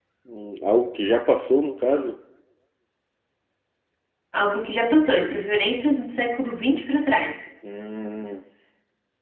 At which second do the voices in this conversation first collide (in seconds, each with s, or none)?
none